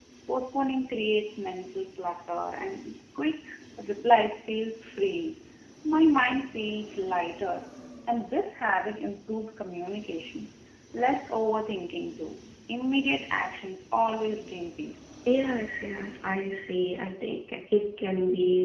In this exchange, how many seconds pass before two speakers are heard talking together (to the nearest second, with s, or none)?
none